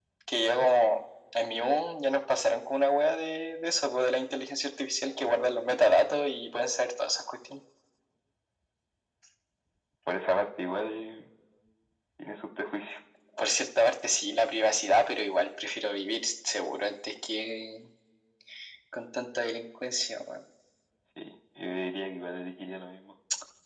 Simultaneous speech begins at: none

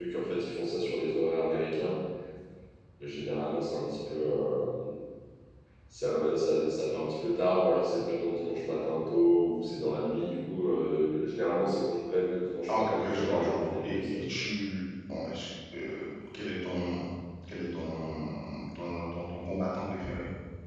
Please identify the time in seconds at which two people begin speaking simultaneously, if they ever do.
13 s

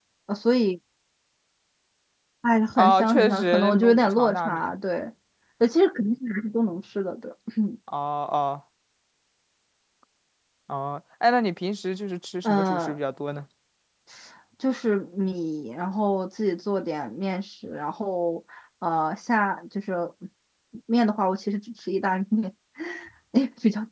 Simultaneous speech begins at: 3 s

